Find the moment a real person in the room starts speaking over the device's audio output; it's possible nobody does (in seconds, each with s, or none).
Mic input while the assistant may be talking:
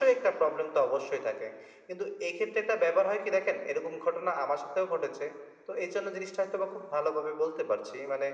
none